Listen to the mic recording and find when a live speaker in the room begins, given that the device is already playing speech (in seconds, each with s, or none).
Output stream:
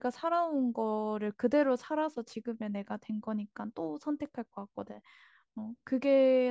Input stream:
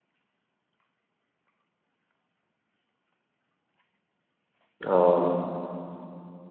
4.8 s